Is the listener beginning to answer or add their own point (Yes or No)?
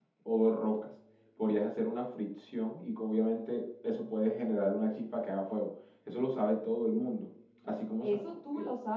Yes